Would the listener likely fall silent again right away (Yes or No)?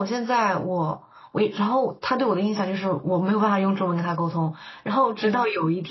Yes